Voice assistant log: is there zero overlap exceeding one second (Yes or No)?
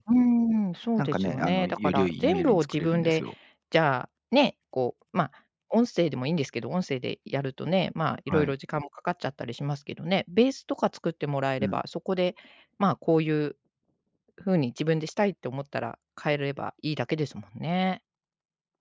No